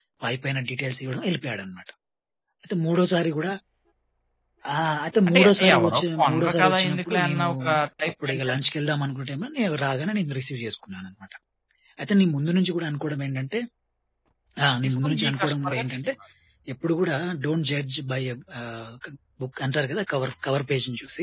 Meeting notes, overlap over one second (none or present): present